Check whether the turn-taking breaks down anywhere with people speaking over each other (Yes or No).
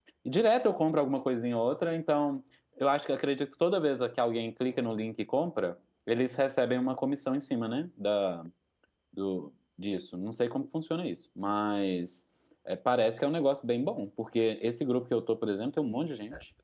No